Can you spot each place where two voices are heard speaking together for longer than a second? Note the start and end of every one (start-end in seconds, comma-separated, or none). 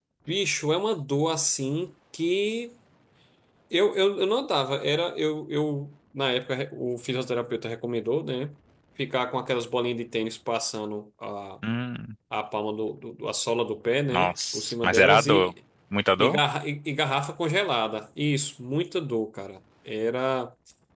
14.1-15.5